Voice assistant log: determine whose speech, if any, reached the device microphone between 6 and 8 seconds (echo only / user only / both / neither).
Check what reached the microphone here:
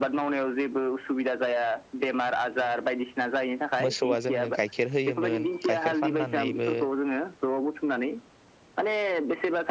both